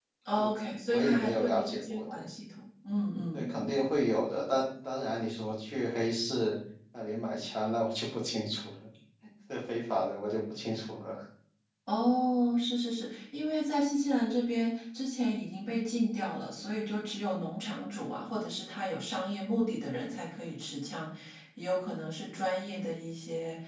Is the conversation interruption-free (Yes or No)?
No